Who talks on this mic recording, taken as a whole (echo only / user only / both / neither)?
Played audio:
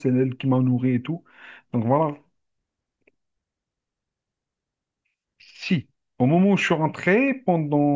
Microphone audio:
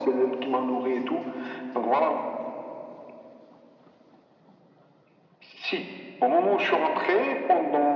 echo only